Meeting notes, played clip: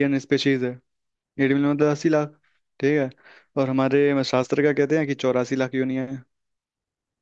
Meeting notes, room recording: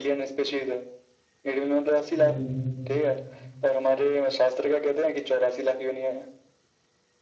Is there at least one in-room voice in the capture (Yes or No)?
Yes